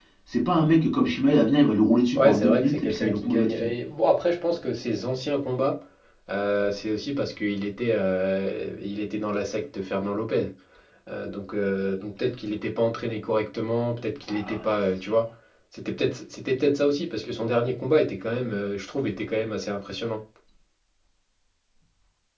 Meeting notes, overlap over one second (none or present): present